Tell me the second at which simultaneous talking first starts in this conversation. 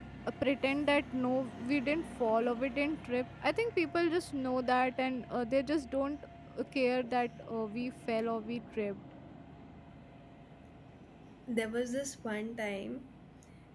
none

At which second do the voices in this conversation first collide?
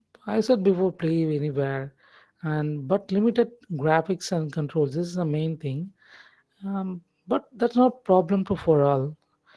none

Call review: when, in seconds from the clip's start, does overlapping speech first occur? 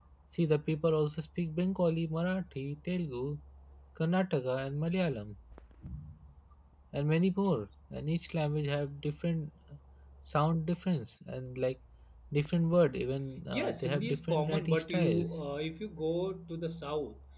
14 s

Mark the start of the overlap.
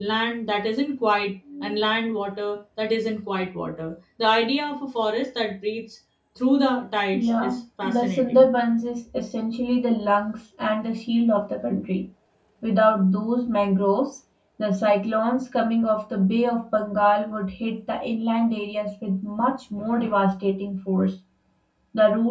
7 s

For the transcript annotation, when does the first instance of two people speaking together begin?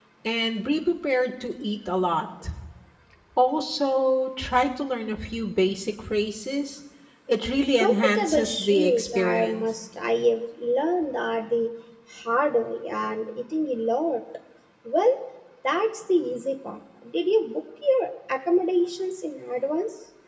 8 s

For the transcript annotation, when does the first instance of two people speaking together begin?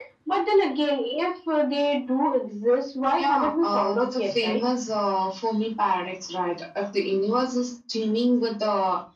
3 s

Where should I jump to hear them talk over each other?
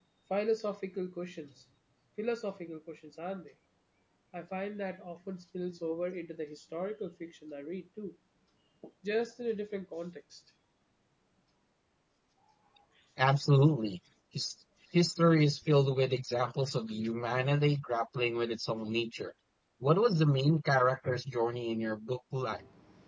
none

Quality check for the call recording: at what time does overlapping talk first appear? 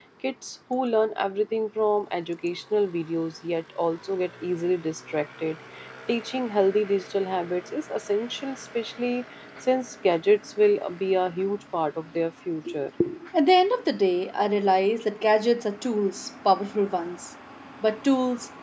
none

